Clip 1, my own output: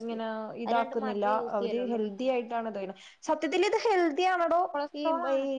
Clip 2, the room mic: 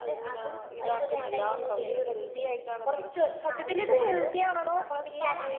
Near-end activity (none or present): present